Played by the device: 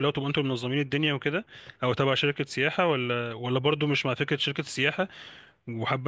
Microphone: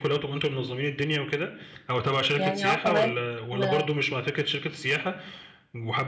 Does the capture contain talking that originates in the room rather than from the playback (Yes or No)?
Yes